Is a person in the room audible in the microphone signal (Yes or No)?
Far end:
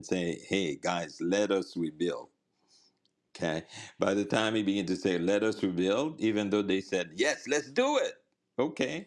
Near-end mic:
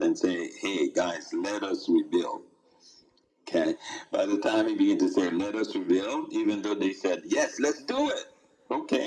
No